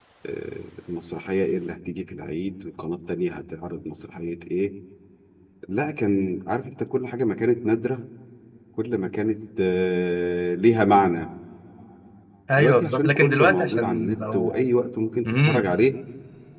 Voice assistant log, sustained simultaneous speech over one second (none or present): present